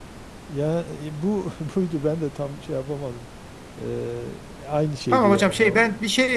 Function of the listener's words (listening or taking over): taking over